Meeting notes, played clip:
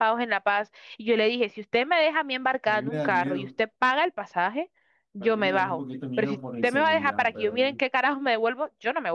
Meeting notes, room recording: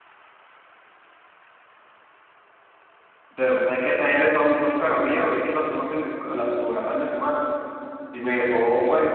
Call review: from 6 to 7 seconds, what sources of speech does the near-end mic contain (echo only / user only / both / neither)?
user only